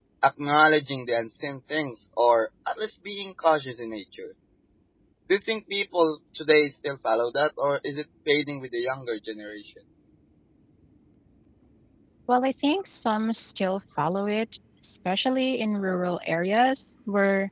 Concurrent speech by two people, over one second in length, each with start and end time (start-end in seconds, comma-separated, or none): none